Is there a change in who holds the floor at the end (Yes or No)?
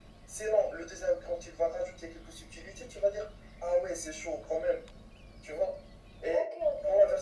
Yes